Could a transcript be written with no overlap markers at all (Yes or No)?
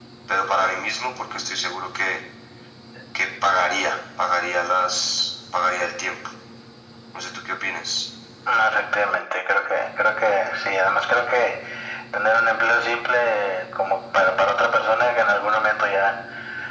Yes